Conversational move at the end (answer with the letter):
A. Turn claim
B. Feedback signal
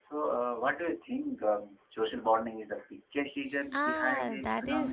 A